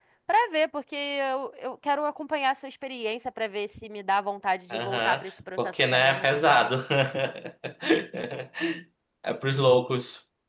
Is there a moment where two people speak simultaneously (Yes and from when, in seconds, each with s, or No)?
Yes, from 4.7 s